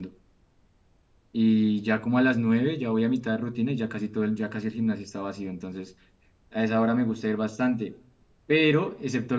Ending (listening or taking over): listening